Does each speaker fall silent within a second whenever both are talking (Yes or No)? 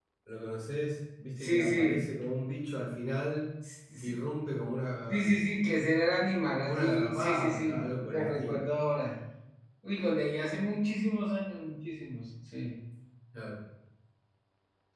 No